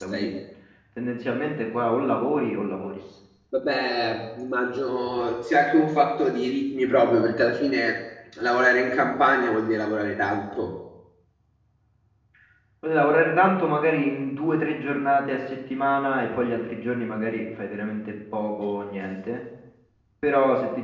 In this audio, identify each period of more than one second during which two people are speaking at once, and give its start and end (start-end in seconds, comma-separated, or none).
none